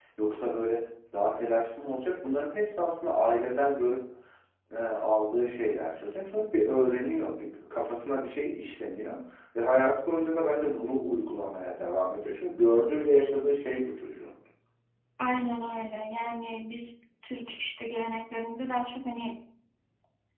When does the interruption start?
none

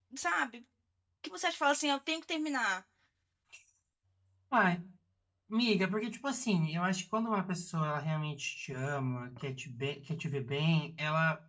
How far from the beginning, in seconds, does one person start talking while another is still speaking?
none

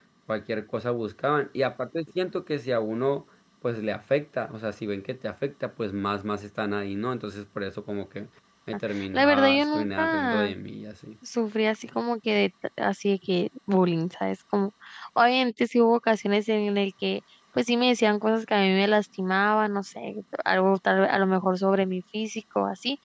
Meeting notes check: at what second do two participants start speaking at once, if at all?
9.1 s

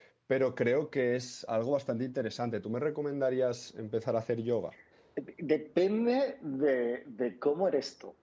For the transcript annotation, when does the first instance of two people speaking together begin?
none

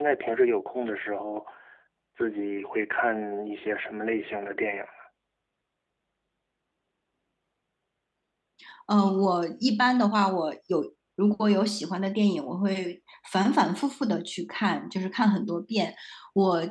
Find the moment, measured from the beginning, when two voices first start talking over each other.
none

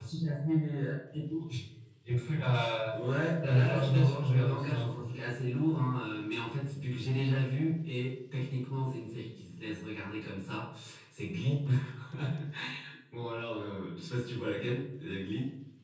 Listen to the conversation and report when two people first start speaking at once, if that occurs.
3.4 s

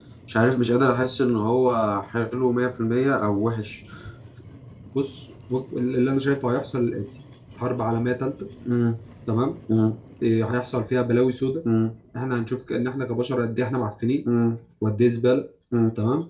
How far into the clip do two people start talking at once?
none

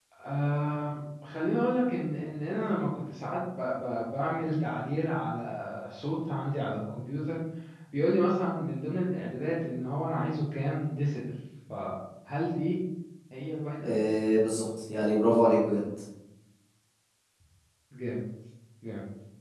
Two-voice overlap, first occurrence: none

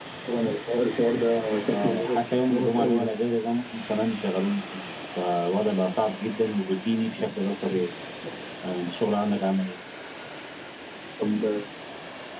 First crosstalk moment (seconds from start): 1.7 s

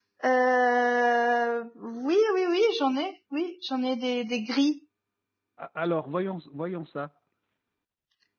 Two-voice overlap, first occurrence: none

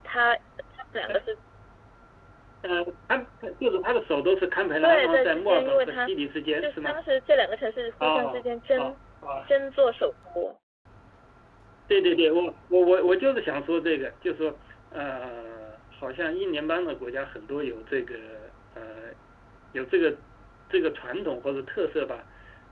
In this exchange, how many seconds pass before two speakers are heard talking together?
4.8 s

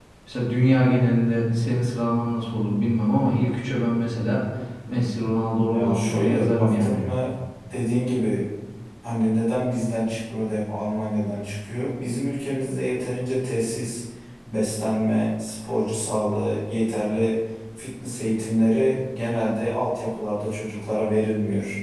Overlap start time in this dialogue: 5.7 s

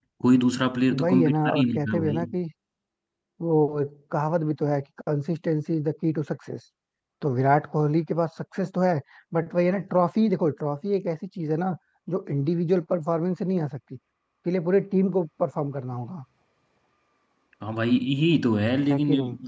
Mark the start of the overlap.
1.0 s

